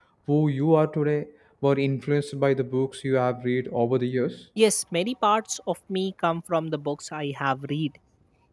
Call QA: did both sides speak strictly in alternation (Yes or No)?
Yes